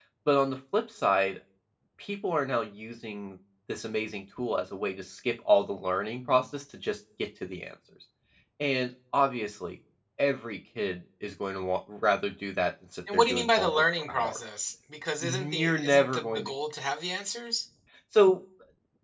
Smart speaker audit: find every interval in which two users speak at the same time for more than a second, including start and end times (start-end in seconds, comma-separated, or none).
13.1-14.4, 15.2-16.5